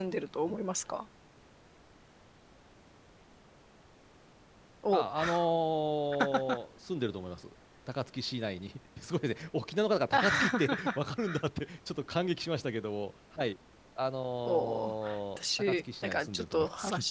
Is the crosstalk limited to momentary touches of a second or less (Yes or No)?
No